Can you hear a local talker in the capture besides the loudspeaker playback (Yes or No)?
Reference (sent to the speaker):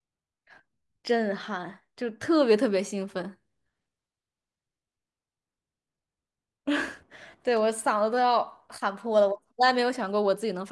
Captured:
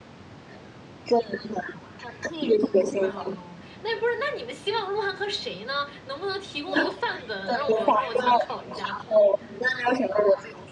Yes